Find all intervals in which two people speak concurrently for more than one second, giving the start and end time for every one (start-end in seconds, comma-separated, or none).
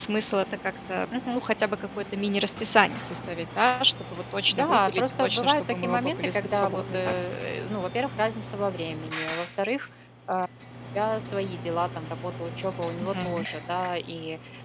4.5-7.1